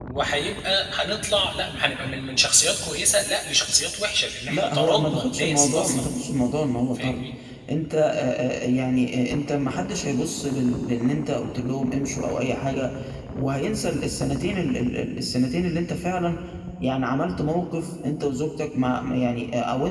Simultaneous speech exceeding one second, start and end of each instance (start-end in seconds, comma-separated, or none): 4.5-6.0